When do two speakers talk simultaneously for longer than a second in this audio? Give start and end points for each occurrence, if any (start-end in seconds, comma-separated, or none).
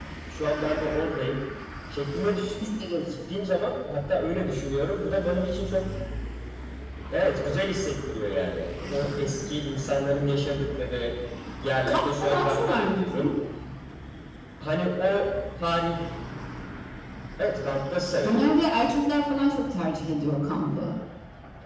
11.9-13.3